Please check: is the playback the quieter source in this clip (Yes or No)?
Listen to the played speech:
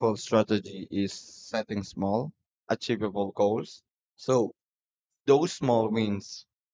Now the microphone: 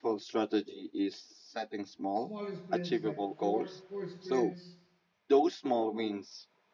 No